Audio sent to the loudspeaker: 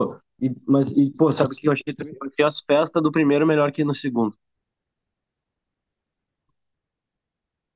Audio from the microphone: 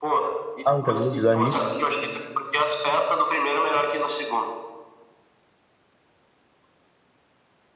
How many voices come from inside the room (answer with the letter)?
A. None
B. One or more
B